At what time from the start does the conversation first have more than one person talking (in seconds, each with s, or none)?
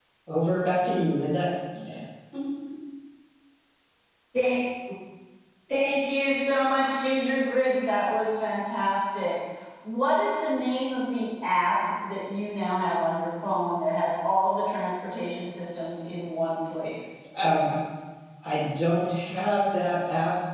none